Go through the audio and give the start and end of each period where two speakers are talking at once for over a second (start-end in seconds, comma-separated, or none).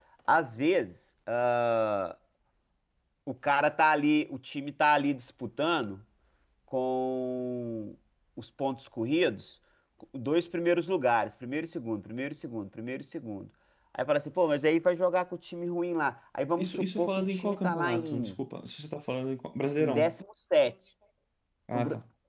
16.6-18.3